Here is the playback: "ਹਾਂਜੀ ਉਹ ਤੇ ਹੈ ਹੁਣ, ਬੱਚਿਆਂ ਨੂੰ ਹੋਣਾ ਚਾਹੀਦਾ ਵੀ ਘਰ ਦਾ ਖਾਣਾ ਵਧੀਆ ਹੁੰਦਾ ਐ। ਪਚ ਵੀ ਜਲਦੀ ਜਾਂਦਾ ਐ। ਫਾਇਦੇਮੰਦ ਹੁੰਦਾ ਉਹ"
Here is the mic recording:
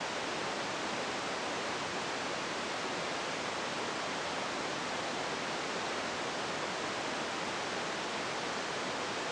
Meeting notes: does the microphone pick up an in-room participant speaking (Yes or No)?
No